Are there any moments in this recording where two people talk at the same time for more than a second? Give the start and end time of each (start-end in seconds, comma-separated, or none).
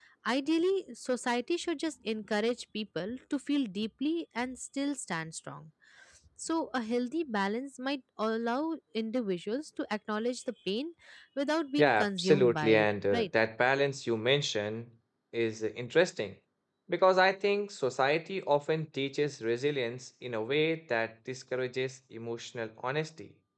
11.8-13.3